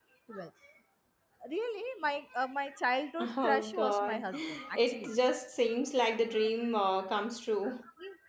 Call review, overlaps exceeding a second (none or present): present